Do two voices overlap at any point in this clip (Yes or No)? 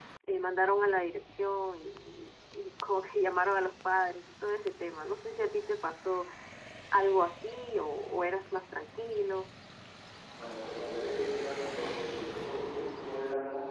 No